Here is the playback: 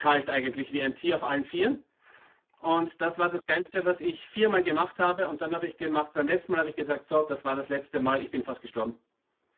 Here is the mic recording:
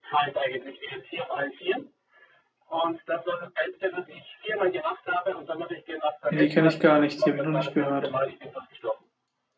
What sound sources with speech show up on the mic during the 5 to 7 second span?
both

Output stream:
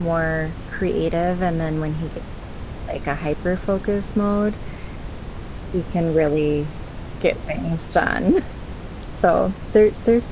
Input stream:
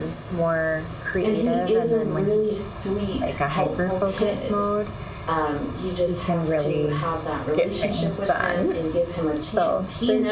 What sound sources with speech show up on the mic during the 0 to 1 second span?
echo only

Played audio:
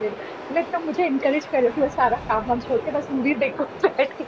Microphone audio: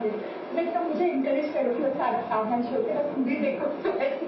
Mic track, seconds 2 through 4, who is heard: echo only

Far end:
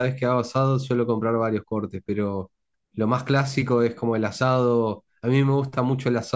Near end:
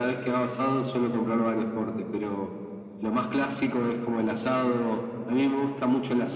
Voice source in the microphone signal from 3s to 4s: echo only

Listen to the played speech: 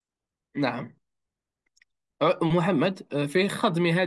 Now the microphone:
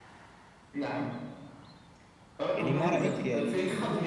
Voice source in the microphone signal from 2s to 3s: both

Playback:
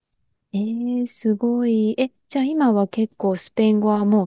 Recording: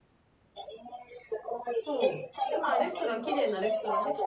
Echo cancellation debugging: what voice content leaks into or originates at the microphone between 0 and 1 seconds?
echo only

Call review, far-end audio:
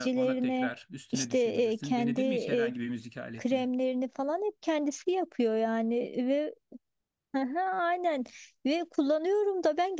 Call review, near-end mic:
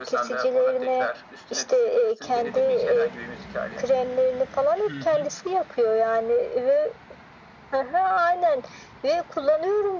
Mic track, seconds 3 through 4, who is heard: echo only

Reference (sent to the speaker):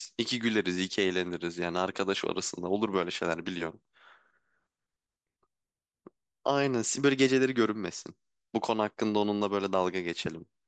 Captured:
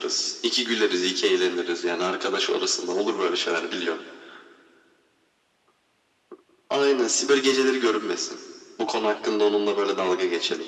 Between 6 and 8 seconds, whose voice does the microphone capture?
echo only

